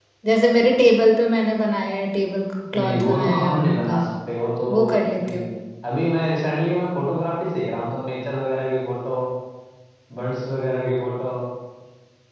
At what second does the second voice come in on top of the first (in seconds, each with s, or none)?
2.8 s